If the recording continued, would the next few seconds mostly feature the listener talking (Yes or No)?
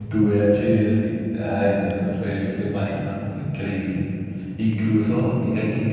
No